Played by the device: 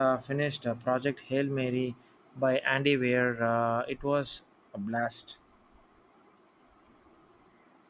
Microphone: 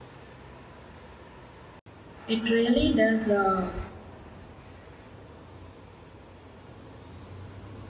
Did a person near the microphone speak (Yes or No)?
Yes